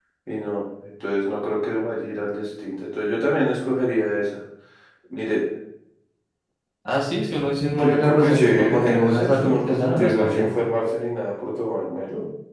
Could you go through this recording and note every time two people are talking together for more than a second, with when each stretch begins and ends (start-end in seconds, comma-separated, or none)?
7.8-10.5